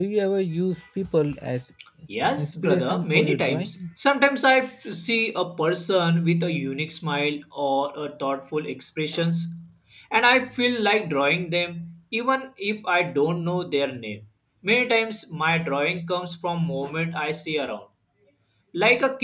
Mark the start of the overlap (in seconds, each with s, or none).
2.4 s